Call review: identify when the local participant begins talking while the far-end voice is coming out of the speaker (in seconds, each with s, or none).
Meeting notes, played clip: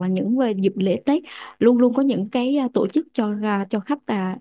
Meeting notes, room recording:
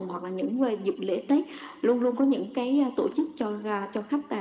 none